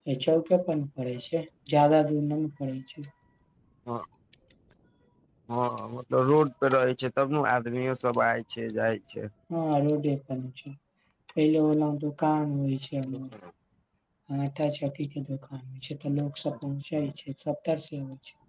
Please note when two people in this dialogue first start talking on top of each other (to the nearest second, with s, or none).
none